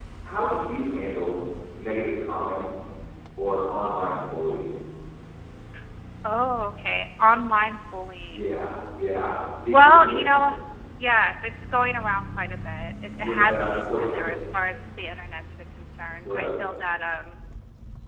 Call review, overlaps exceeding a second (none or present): present